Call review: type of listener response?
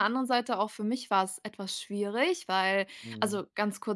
listening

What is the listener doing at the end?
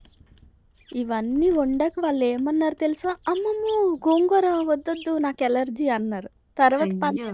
listening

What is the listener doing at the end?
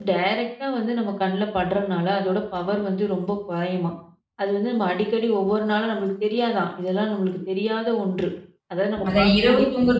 taking over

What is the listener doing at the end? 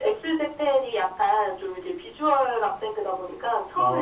listening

